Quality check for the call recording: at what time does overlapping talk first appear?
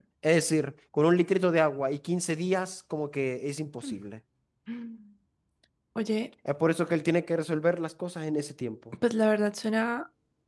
none

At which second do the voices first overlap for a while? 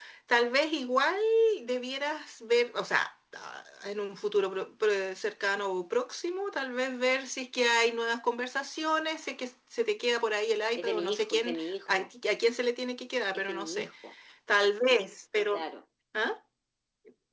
10.8 s

